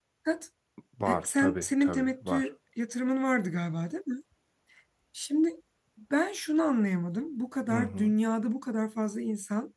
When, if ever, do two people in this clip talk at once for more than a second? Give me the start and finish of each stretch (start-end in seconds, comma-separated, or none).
1.1-2.5